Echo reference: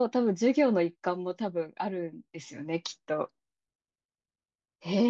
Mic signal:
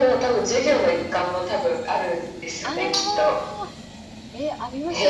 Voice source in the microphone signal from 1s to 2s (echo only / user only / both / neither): echo only